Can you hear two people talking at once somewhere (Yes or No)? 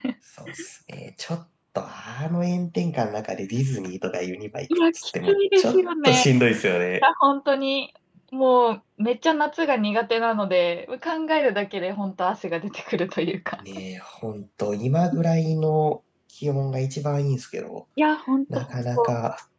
Yes